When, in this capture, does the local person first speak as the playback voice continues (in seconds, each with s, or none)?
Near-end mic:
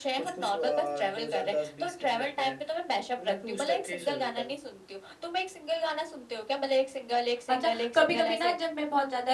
7.5 s